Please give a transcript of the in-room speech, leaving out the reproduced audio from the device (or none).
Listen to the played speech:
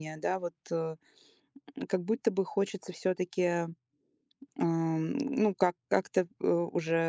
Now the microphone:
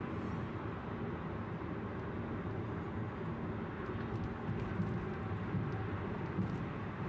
none